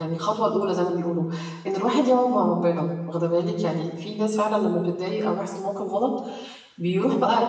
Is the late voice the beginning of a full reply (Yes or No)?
No